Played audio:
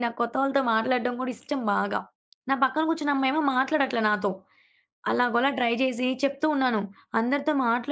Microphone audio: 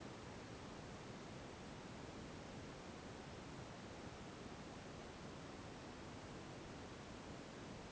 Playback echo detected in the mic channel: No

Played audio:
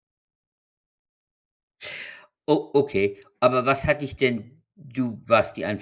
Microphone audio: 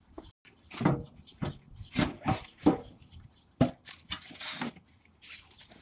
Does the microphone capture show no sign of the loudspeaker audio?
Yes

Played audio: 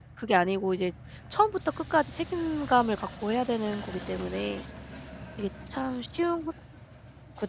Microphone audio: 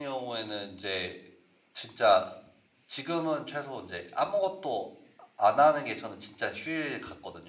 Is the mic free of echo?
Yes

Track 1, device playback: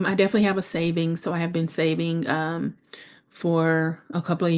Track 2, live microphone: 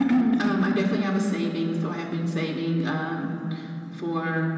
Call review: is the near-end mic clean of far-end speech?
No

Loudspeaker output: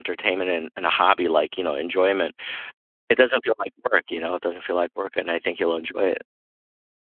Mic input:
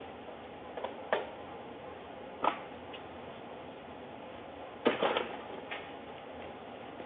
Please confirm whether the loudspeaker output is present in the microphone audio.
No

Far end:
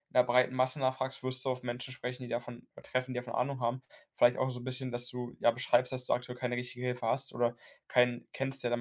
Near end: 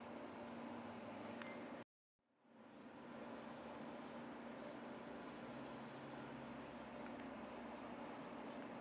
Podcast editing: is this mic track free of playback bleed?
Yes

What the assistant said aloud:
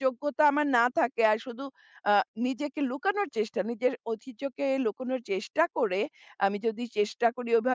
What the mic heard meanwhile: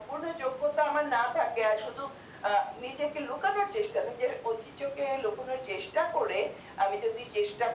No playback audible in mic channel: No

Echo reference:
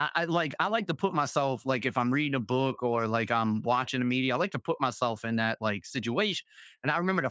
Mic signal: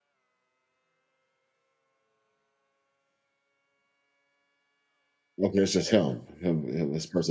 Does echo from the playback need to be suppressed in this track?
No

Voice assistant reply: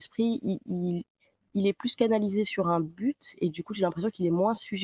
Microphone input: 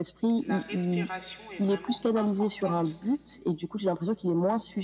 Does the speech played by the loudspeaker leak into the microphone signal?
Yes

